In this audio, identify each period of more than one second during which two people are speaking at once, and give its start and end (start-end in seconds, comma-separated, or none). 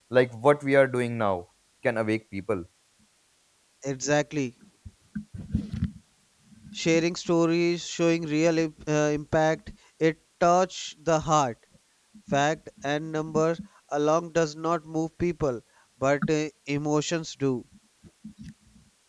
none